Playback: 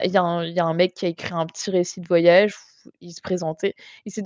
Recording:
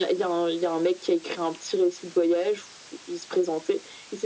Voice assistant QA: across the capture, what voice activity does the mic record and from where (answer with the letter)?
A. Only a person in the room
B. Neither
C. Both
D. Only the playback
D